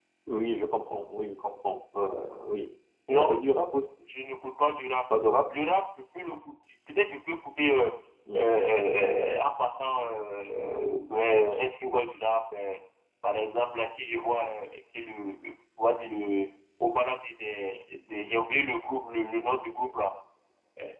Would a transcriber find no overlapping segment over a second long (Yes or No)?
Yes